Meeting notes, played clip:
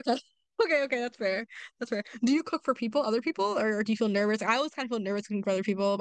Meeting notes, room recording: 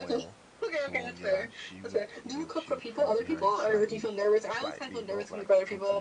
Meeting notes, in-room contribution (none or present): present